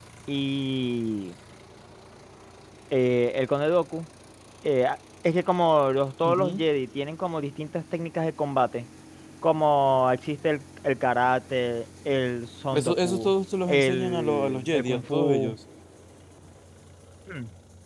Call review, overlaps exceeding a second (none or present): present